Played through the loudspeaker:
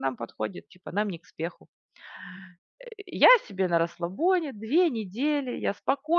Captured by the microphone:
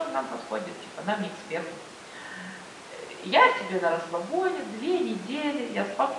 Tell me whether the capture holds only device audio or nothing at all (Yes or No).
Yes